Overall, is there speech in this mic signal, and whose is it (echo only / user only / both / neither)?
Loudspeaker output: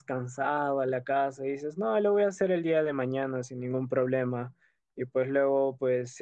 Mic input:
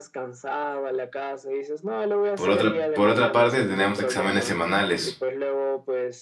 both